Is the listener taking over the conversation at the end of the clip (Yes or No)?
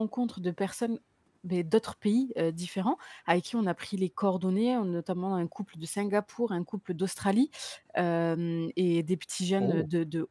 No